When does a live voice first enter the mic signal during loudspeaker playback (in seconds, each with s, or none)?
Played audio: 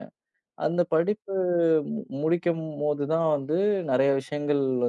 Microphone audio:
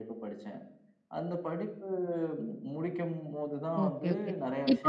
3.8 s